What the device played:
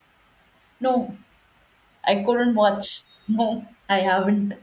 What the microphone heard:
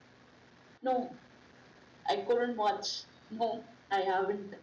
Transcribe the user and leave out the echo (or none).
none